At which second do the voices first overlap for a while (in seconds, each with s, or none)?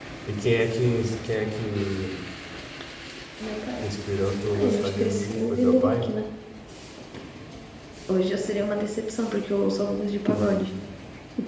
4.5 s